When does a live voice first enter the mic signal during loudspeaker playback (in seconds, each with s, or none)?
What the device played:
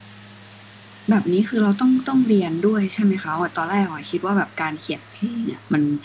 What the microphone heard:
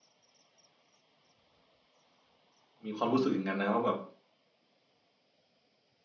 2.8 s